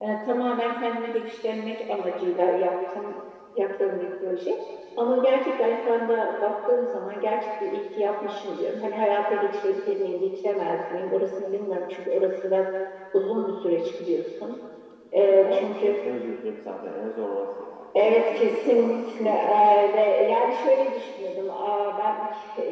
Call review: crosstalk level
present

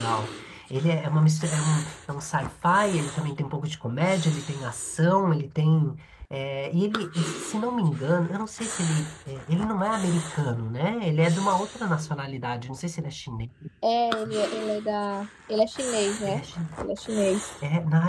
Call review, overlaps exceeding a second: none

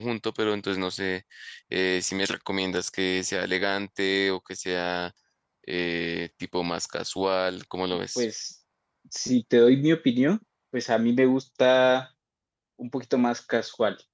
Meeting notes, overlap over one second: none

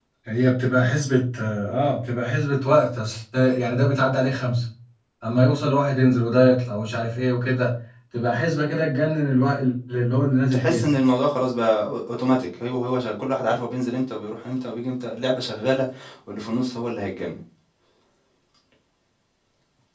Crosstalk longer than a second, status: none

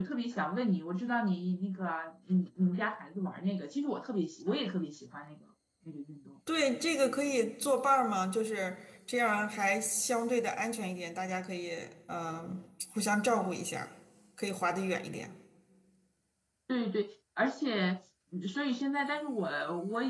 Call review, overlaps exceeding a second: none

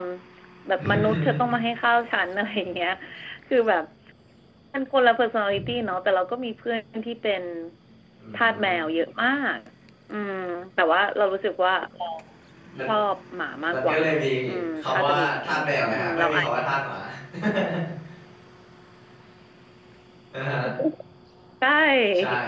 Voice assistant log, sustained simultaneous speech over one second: present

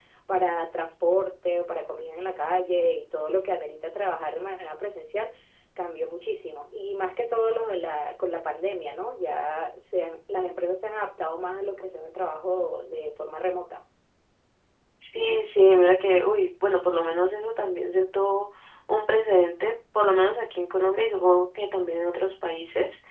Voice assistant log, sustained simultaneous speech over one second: none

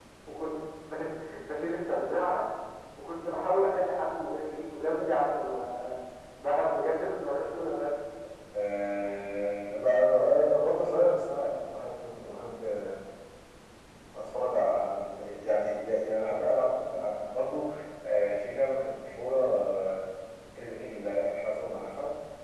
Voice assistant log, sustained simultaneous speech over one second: none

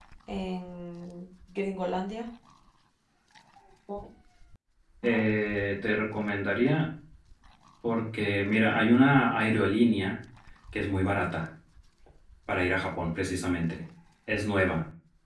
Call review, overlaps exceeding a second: none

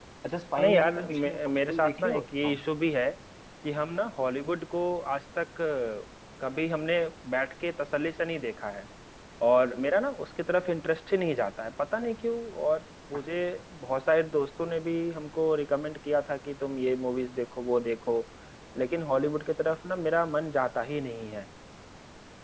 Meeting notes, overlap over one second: present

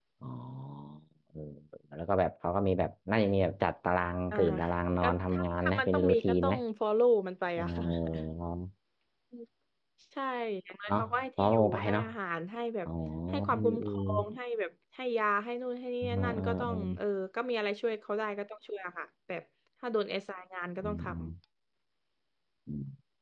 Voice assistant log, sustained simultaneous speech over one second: present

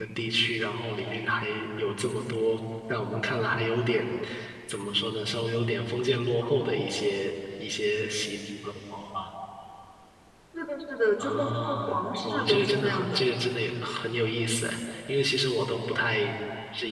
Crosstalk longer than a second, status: present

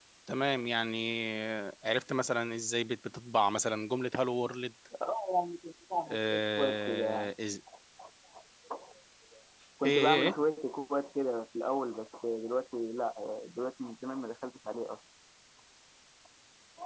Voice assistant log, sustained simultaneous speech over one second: present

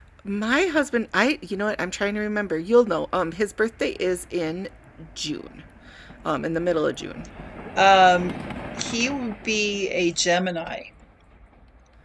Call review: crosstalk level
none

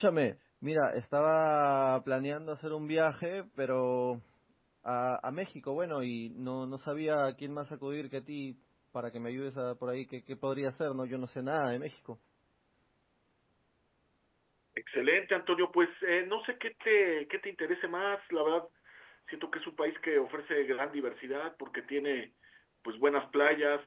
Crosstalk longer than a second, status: none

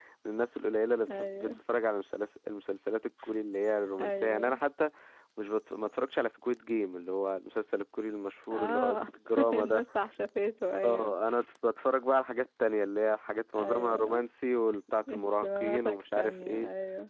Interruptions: present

